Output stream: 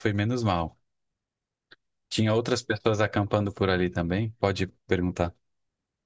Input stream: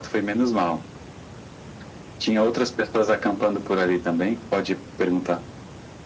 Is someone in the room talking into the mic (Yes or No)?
No